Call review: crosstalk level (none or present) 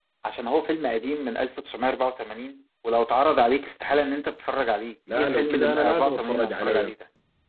present